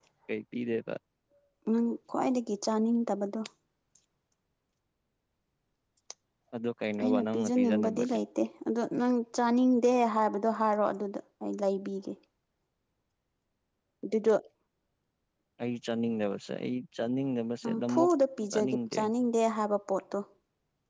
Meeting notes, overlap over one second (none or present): present